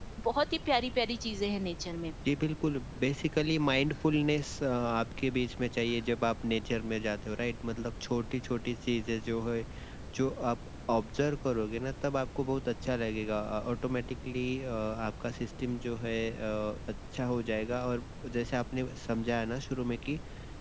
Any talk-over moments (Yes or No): No